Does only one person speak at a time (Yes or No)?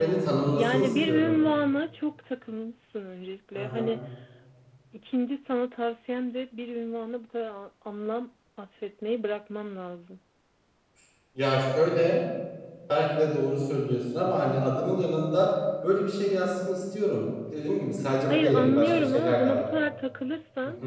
No